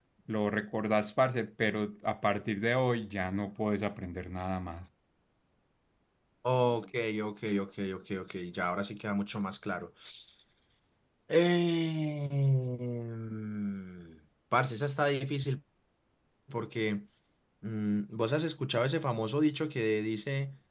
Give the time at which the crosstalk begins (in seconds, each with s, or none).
none